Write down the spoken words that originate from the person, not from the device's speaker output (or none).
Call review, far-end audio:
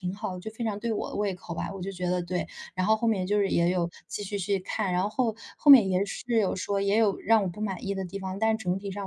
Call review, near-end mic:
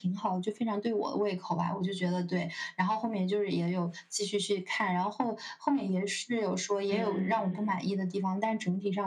嗯，